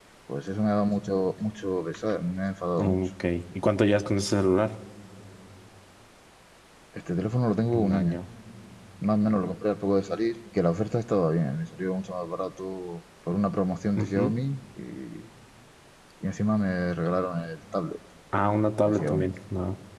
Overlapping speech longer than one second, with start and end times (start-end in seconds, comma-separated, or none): none